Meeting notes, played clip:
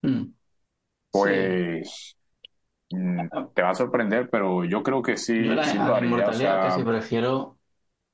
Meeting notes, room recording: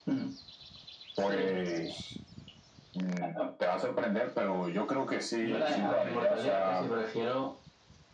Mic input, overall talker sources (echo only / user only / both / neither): echo only